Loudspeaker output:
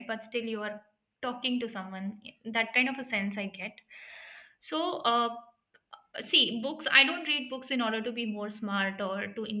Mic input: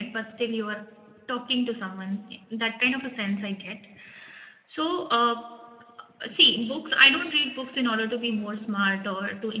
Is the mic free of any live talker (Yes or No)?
Yes